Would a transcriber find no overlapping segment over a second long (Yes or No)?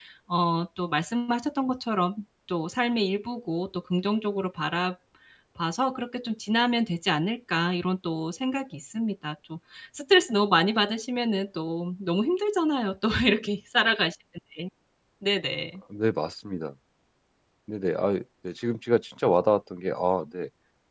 Yes